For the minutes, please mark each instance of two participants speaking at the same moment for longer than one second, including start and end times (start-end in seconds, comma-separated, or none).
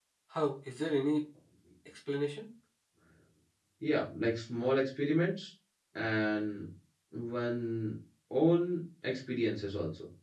none